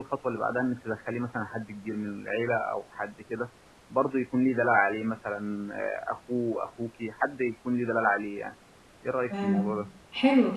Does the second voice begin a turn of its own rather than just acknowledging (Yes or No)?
Yes